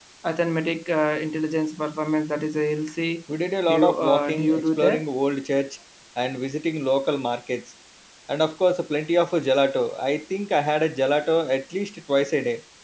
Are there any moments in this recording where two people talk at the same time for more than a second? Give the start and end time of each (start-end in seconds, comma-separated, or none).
3.6-5.0